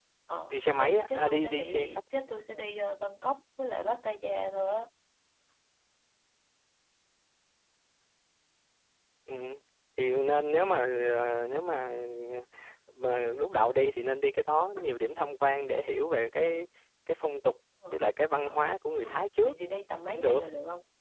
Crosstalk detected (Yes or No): Yes